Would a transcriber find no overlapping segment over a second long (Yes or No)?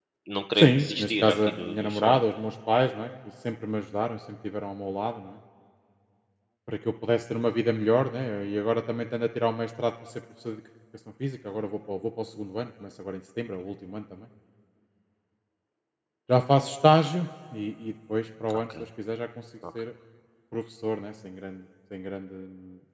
No